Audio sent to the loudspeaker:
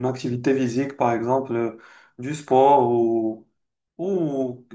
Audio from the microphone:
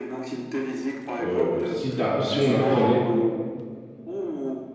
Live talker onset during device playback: 1.2 s

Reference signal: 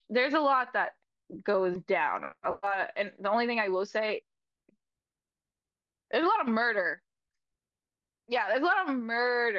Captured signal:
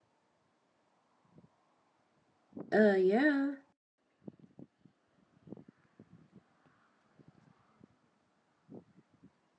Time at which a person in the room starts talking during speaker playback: 2.7 s

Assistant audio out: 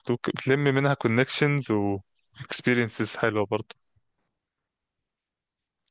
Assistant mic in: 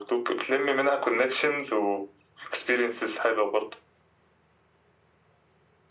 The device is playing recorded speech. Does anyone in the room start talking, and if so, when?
none

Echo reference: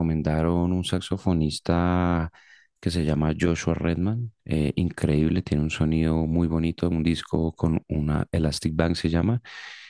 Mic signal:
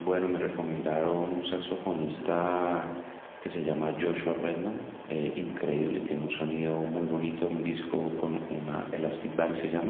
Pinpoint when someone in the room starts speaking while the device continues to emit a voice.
none

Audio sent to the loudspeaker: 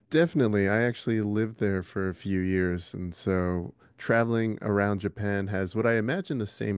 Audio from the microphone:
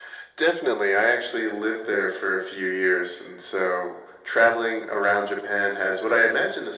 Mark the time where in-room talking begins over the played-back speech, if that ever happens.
none

